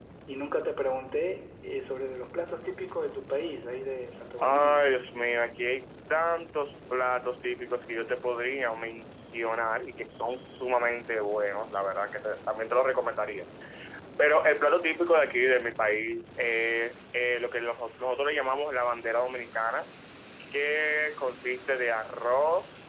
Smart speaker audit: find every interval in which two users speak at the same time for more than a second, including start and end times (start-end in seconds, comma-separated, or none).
none